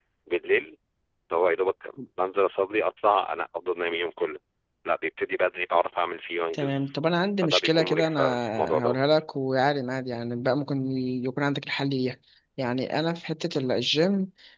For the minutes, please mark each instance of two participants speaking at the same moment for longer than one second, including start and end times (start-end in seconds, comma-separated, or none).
7.4-9.0